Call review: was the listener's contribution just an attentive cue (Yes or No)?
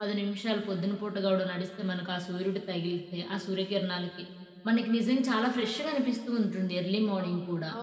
No